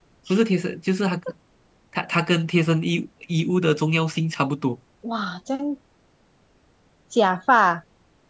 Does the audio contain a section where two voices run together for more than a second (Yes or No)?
No